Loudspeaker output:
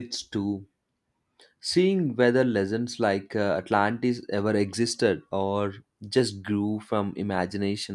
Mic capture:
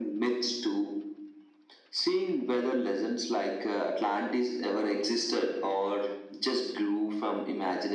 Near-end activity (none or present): none